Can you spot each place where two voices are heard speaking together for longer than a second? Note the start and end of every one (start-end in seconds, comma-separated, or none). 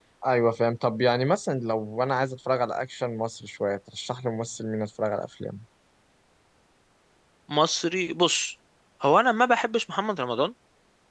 none